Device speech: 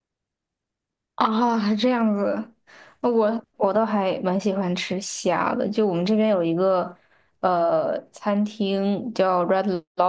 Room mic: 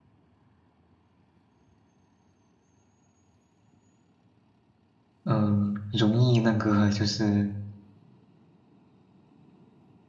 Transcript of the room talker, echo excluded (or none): 嗯、容易那个就是